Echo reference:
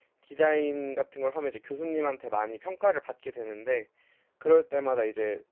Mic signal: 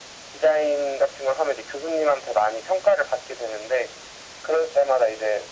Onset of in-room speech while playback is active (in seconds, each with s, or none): none